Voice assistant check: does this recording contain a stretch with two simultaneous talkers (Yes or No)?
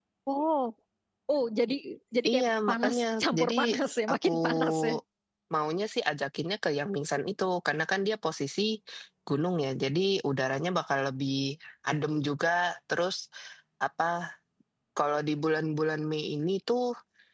Yes